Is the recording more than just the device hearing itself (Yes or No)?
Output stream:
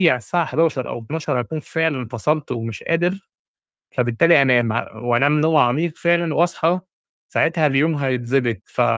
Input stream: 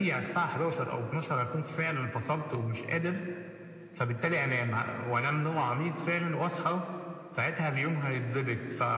No